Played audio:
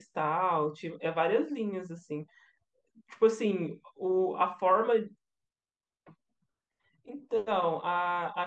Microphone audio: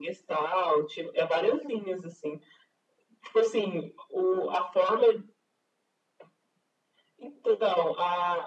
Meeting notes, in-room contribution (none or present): none